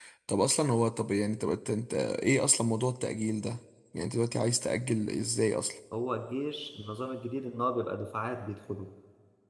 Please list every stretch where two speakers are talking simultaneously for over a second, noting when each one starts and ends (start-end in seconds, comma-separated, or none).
none